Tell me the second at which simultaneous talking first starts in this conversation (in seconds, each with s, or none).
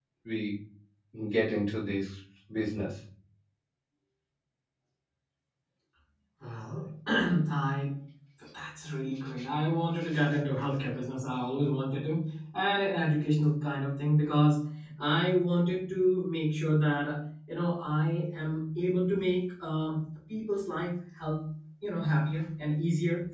none